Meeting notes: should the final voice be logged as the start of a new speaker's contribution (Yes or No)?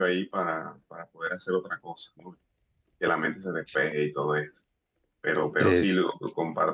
No